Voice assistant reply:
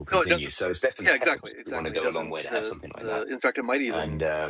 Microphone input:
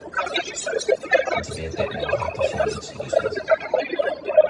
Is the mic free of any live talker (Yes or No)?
No